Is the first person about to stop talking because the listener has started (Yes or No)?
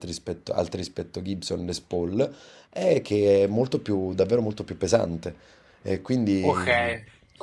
Yes